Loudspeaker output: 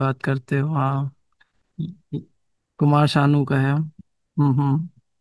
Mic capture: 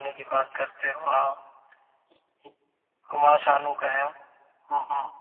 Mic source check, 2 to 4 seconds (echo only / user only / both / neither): echo only